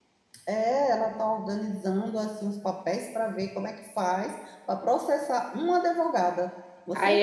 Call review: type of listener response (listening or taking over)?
taking over